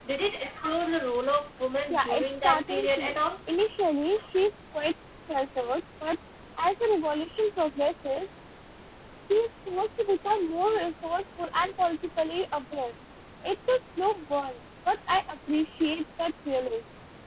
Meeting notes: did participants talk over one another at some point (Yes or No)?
Yes